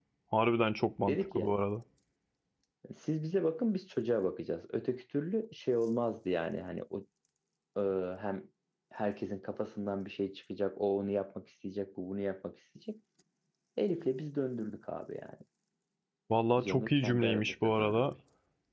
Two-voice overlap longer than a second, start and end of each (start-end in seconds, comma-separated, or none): 16.6-18.1